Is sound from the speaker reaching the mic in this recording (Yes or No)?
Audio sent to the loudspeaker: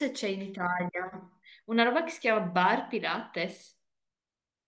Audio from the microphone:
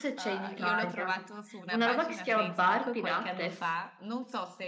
Yes